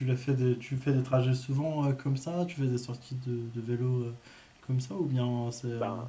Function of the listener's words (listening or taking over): listening